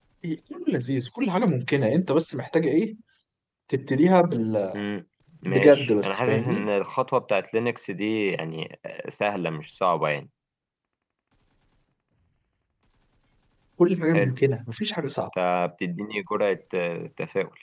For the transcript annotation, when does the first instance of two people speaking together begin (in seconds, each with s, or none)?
5.5 s